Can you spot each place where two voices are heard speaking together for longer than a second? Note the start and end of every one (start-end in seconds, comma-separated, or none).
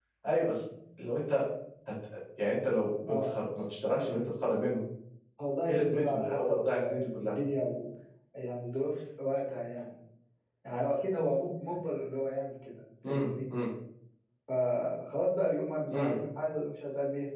5.7-7.4